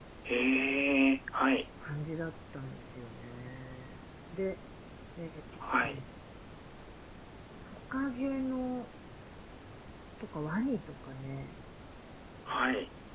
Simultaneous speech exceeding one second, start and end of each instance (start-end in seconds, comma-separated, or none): none